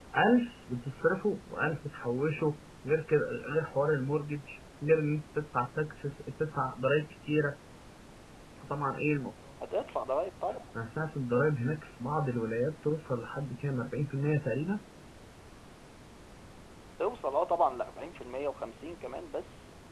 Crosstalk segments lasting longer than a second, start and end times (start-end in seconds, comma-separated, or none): none